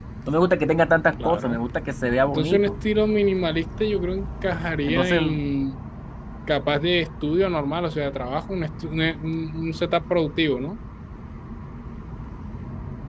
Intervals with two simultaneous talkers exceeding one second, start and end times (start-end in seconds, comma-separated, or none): none